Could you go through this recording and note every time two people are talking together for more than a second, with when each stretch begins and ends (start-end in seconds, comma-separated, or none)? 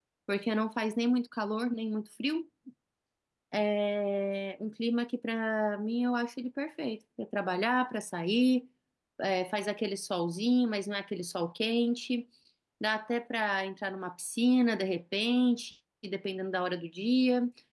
none